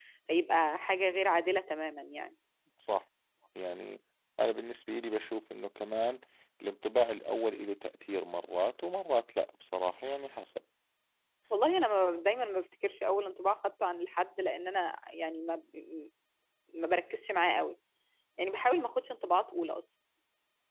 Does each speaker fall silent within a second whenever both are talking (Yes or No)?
Yes